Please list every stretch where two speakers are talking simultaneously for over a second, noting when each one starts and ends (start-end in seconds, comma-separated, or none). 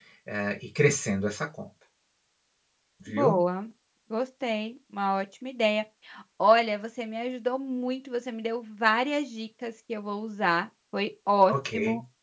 none